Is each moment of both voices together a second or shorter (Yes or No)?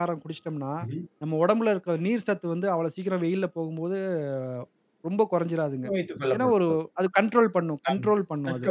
Yes